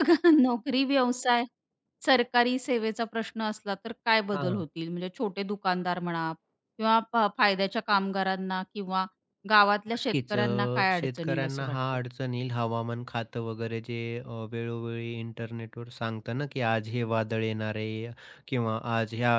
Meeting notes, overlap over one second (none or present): present